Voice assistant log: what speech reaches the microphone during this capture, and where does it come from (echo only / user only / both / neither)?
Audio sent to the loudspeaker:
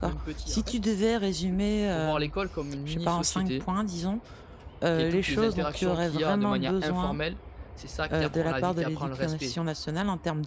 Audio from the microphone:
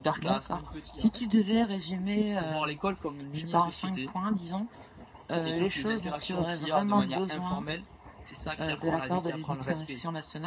echo only